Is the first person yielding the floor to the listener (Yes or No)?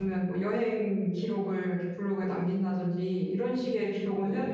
No